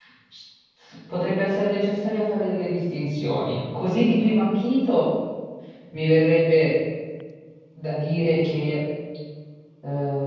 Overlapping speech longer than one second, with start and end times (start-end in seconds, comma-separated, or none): none